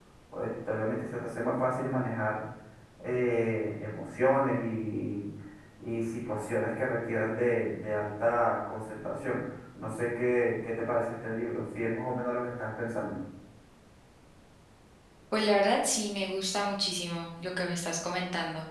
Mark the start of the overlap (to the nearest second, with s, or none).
none